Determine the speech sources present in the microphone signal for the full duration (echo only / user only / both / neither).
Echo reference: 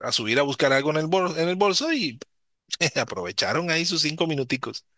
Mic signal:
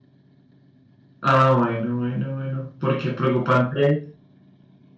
user only